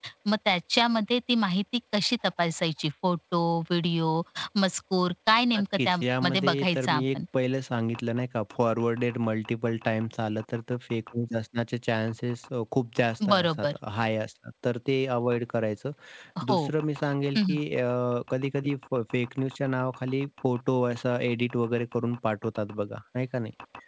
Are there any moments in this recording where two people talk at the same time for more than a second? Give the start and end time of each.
5.6-7.2

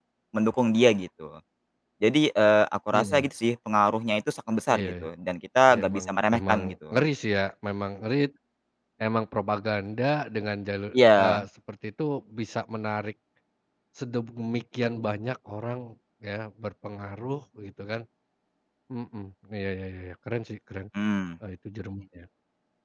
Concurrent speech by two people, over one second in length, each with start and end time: 5.7-7.0

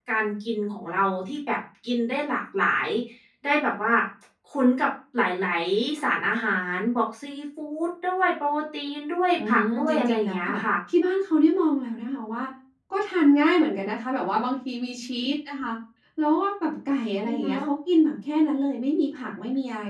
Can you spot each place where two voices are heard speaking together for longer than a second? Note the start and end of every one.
9.3-10.6

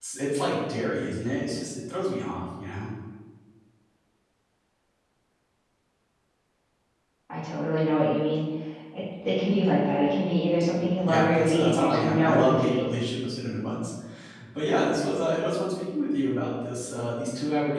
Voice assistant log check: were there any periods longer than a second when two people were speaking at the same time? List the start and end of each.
11.1-12.9

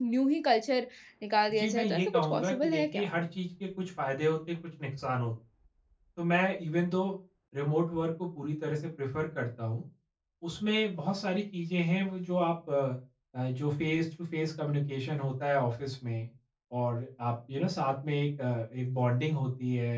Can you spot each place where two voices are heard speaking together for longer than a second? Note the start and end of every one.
1.6-3.0

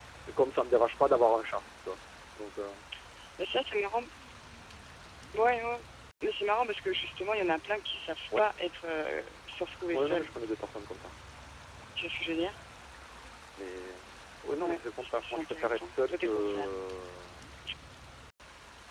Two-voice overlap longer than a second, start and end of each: 14.6-16.7

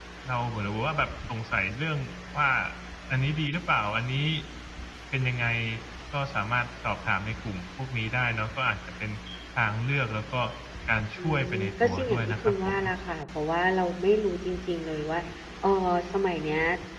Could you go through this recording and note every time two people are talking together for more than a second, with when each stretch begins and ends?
11.2-12.8

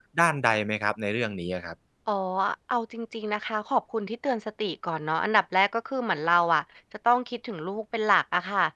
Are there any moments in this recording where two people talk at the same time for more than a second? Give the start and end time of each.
none

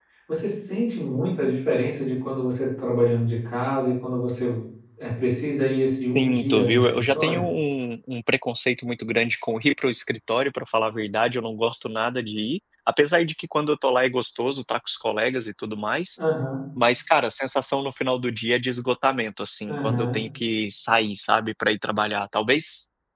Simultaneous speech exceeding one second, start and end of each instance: 6.2-7.4

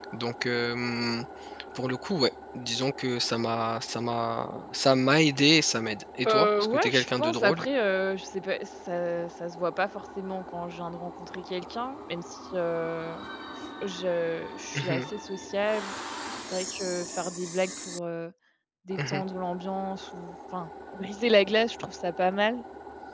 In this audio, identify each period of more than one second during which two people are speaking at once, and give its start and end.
6.2-7.6

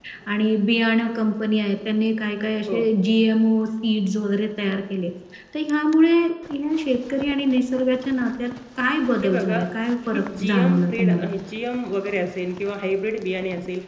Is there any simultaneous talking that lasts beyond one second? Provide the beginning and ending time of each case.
10.1-11.3

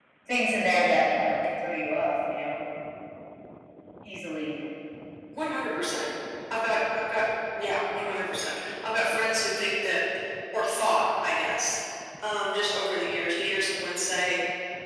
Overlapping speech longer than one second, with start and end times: none

